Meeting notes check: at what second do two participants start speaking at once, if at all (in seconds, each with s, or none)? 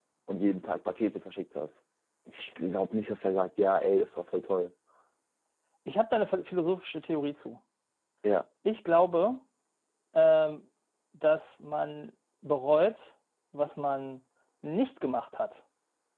none